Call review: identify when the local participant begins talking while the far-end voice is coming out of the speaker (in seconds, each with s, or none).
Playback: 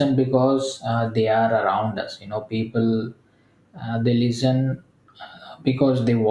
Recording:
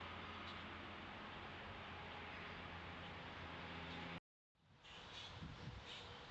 none